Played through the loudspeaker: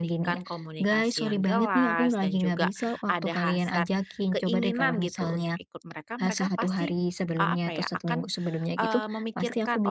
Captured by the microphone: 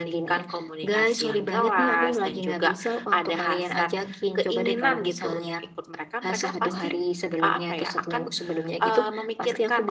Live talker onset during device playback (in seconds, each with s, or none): none